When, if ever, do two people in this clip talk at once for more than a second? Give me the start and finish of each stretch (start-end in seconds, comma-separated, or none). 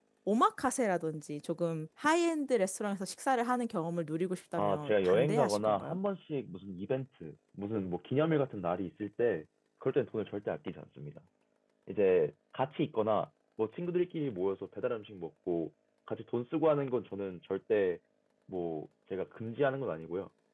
4.6-6.0